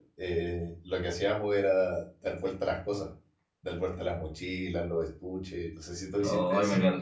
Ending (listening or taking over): taking over